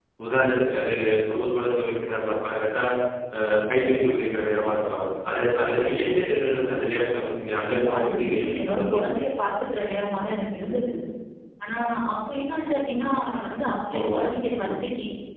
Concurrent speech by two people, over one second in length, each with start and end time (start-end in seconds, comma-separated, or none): 7.6-9.1